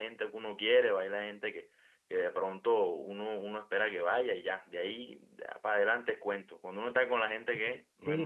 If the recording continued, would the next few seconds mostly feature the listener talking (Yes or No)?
Yes